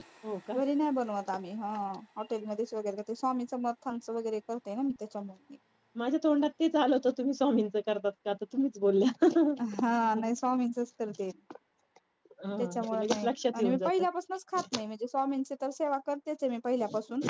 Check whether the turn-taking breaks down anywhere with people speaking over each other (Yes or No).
Yes